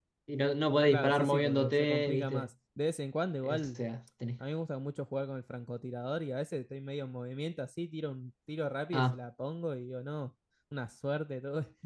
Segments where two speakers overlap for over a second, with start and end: 0.9-2.5

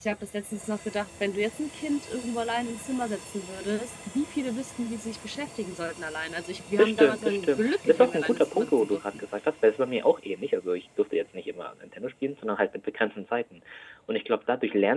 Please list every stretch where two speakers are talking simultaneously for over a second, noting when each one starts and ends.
6.8-9.2

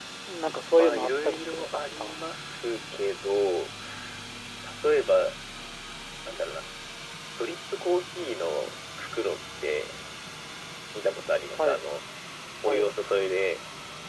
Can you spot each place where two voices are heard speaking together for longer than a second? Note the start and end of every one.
0.8-2.1

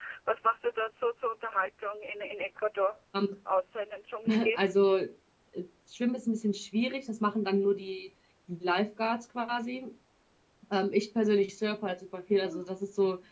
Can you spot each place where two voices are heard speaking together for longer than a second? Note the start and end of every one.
none

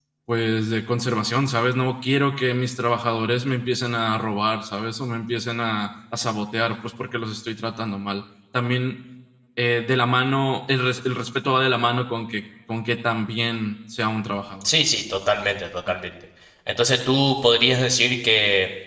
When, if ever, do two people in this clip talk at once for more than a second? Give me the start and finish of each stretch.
none

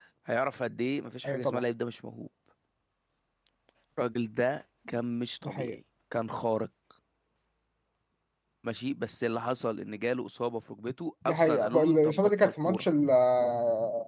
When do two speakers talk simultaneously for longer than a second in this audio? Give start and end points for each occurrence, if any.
11.2-12.8

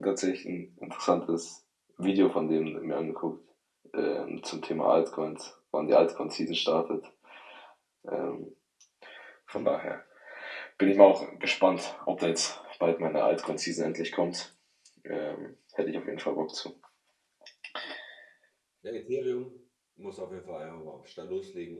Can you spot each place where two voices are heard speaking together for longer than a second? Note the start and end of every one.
none

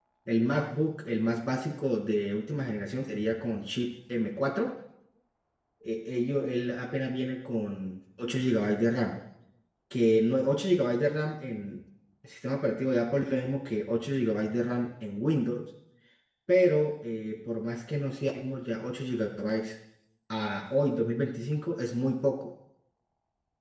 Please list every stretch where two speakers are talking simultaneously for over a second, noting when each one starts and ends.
none

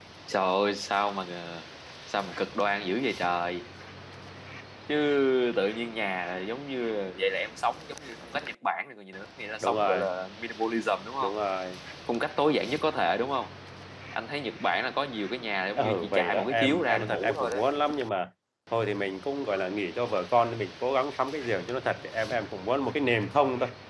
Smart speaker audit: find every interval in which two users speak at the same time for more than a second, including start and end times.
15.8-17.6

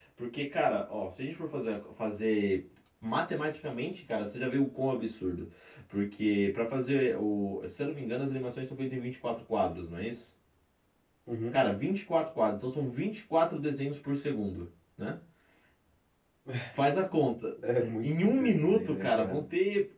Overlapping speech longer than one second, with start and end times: 18.0-19.4

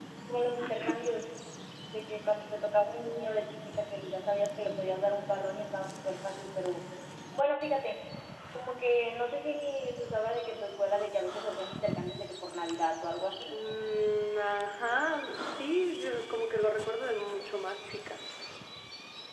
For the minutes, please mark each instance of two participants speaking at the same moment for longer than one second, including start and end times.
none

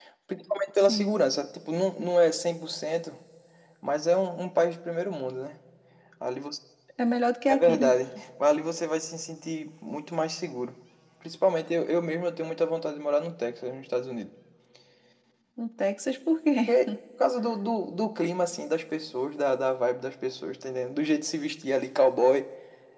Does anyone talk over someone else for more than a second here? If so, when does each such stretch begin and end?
none

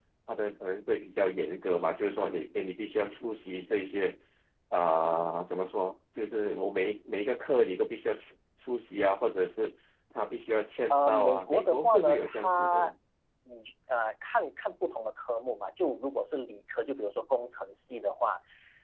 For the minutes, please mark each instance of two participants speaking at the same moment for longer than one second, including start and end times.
10.9-12.9

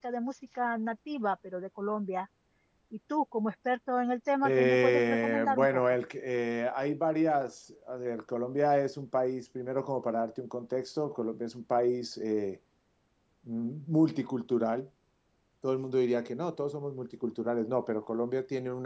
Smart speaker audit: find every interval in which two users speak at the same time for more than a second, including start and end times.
4.4-5.8

